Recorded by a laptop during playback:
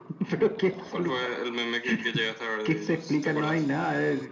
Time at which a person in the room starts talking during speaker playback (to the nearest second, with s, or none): none